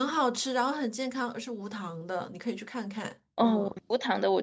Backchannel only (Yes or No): No